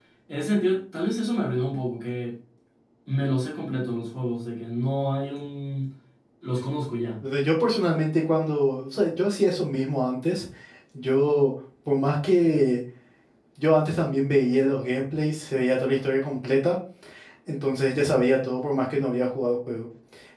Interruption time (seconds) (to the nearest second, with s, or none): none